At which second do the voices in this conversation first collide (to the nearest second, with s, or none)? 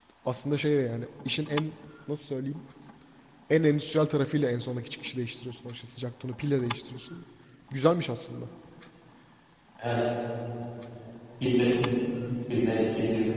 none